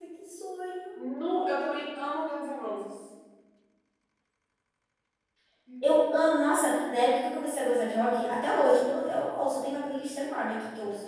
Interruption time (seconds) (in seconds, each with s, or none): none